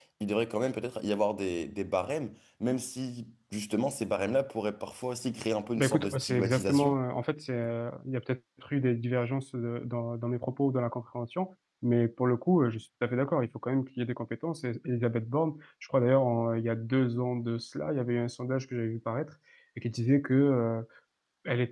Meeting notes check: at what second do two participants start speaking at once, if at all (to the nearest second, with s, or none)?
6 s